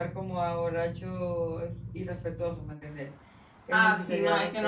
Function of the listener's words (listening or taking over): taking over